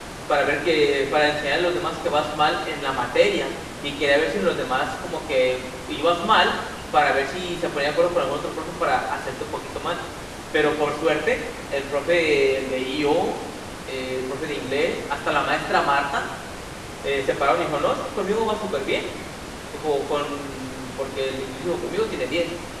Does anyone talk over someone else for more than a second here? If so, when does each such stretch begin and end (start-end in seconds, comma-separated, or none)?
none